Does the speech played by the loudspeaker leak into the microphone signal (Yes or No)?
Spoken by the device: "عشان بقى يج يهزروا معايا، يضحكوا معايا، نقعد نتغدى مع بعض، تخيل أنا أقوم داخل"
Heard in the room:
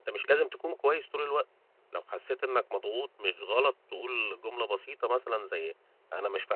No